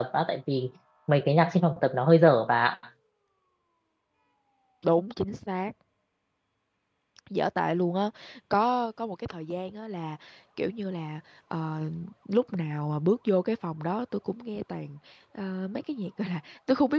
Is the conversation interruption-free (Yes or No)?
Yes